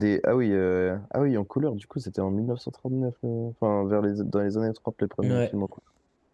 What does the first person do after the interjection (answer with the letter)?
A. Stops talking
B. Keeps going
B